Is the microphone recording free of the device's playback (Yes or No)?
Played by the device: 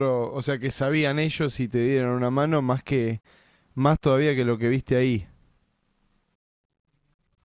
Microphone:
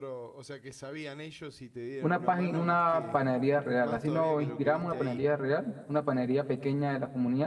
No